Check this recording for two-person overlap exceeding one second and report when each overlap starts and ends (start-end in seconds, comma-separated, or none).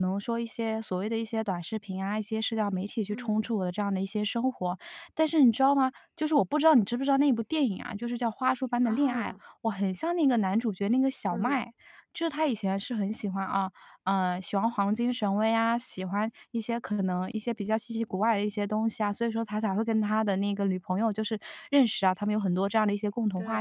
none